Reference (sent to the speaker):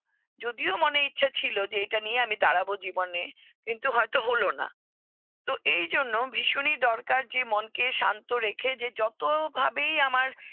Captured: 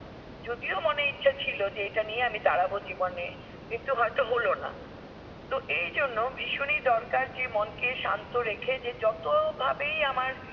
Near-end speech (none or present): none